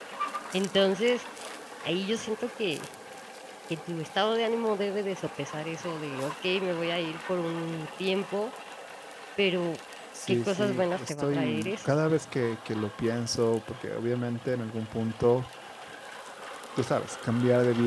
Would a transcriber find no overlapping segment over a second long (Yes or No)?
No